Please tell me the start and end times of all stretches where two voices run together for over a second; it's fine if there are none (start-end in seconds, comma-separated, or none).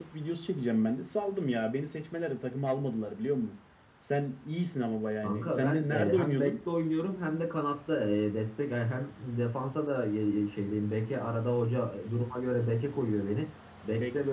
5.2-6.6